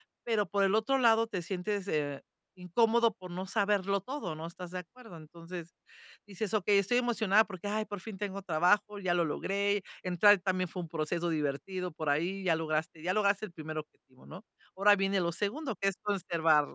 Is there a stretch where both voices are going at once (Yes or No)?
No